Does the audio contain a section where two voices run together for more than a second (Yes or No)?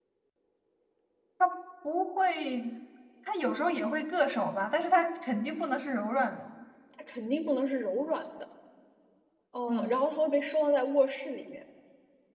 No